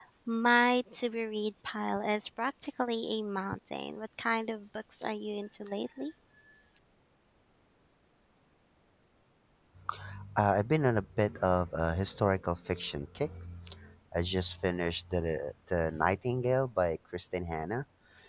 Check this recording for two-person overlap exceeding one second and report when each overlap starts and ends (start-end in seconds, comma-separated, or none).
none